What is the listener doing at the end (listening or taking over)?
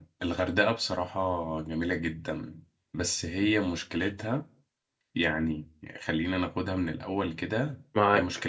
listening